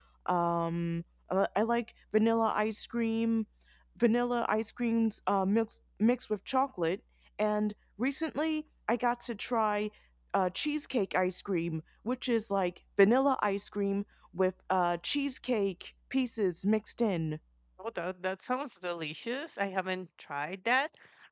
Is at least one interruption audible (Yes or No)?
No